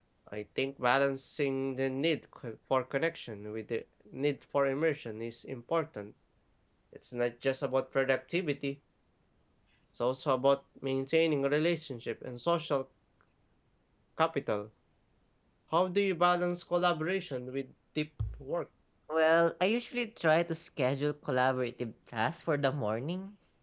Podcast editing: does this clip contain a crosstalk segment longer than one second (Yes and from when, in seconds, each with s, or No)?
No